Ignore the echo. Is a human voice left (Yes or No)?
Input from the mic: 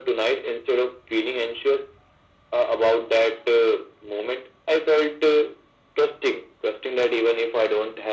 No